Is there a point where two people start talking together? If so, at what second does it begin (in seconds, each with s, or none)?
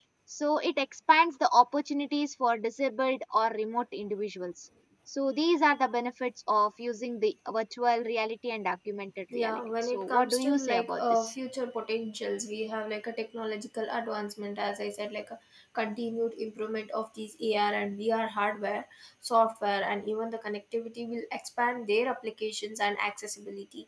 9.3 s